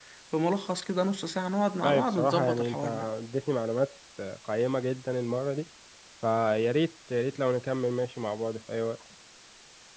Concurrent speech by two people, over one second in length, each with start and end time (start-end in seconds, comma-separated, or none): 1.8-3.0